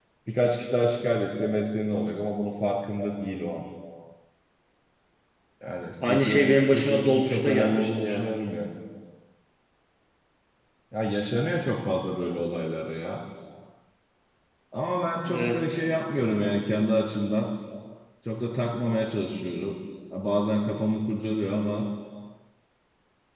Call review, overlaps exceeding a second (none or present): present